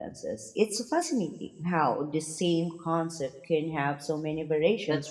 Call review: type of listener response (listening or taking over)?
taking over